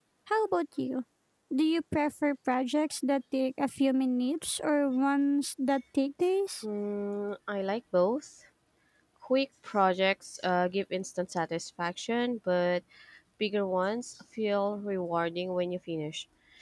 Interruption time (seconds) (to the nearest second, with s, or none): none